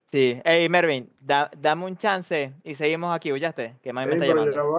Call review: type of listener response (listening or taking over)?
taking over